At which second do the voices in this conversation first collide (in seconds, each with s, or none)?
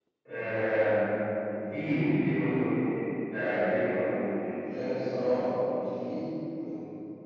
none